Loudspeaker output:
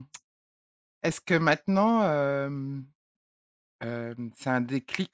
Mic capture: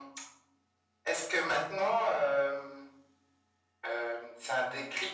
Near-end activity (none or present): none